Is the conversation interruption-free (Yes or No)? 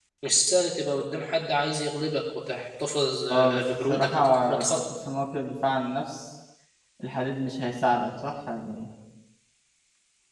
No